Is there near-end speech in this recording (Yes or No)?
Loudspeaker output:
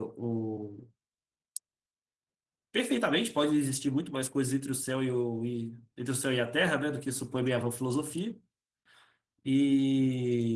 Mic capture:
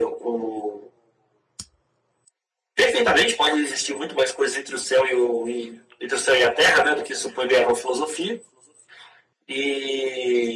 No